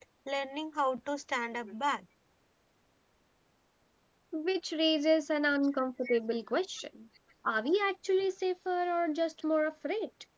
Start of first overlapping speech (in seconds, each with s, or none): none